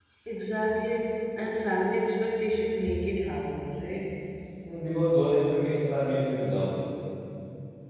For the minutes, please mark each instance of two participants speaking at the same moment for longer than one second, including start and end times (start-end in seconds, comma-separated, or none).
none